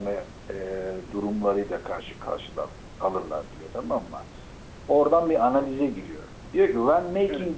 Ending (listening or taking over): listening